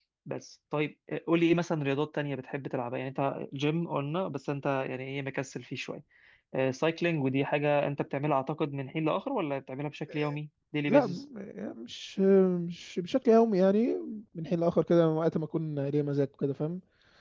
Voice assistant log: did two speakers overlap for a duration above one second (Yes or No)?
No